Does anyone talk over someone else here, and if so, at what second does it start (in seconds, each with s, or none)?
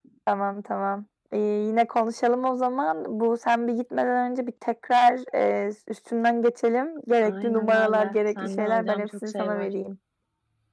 7.2 s